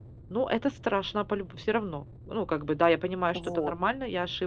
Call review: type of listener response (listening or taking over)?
listening